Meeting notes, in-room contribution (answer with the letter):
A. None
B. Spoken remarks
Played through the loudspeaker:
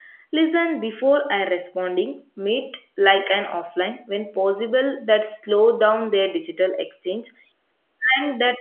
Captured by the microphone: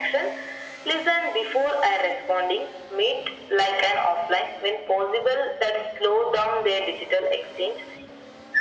A